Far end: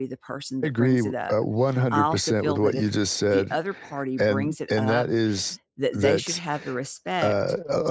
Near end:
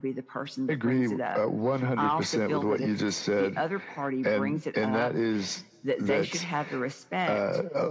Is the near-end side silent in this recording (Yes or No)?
Yes